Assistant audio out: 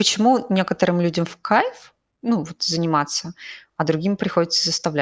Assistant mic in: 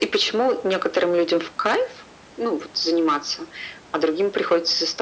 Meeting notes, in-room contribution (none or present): none